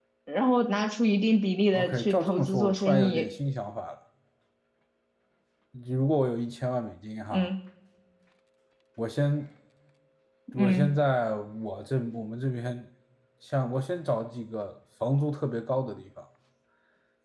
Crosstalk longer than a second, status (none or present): present